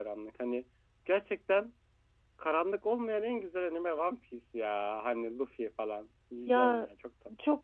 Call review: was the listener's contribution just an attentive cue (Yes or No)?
No